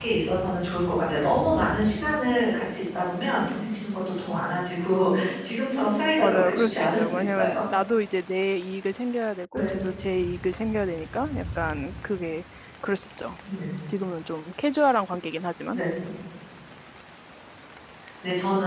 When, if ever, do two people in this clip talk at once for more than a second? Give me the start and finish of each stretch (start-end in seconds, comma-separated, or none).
6.2-7.5